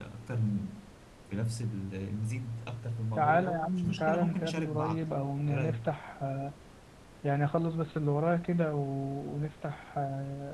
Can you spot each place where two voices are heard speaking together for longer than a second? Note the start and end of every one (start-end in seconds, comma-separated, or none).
3.2-5.1